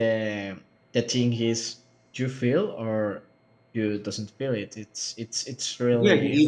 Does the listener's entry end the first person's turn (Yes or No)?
Yes